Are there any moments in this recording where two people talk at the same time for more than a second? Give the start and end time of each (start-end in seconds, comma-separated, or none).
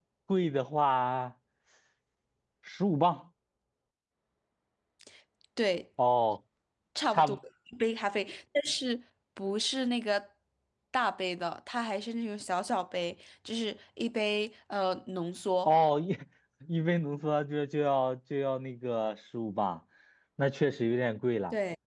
none